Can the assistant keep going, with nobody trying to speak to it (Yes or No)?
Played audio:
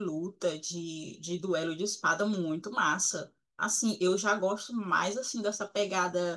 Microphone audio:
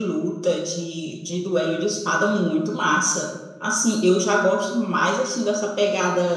Yes